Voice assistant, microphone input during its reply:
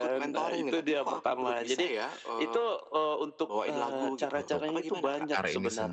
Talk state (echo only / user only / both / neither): both